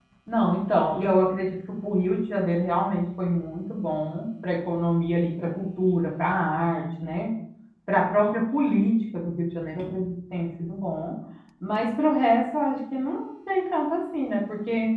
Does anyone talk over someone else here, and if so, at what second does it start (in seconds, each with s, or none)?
none